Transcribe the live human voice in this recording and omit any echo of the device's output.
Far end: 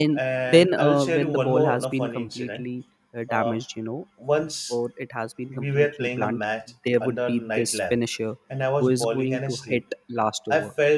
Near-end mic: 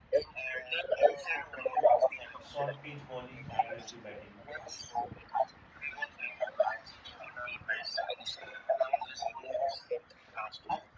Short pitch bowling, aggressive batting.

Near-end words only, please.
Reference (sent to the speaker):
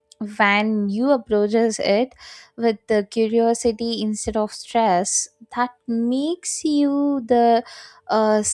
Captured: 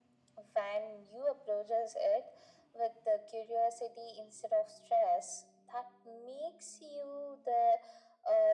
none

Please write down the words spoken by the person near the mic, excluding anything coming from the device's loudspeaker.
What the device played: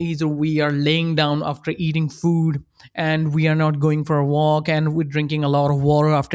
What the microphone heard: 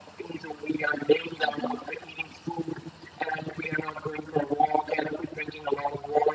hmm

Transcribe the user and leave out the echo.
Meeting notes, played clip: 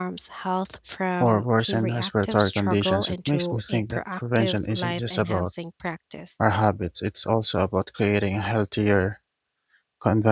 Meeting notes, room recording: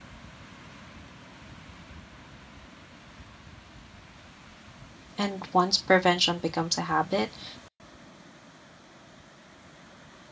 And once prevention becomes a habit,

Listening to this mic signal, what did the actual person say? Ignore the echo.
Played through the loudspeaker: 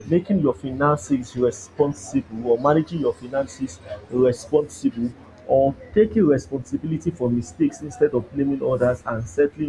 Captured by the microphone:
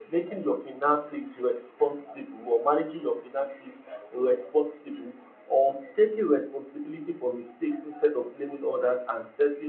none

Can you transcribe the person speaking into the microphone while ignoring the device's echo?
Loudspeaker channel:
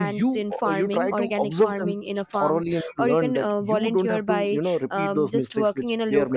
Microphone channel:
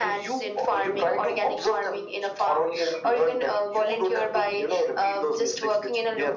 none

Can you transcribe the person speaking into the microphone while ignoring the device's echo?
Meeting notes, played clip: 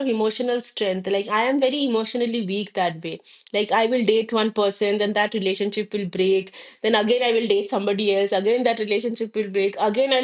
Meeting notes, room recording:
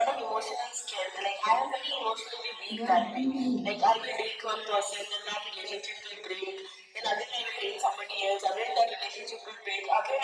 Yeah, same for me.

